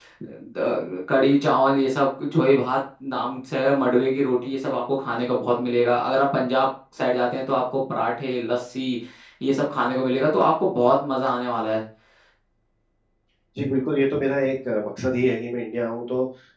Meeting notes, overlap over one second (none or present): none